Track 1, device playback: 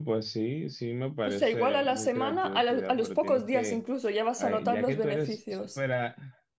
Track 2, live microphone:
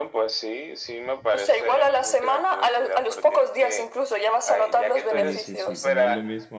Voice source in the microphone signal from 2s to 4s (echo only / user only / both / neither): echo only